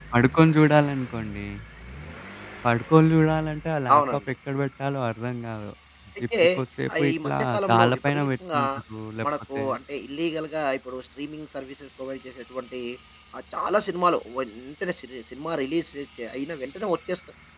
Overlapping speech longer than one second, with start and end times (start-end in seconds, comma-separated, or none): 7.0-8.6